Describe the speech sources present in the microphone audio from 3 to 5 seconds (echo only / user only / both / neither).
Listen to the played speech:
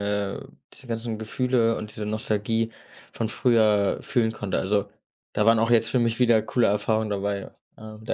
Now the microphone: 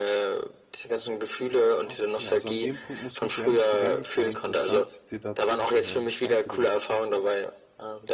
both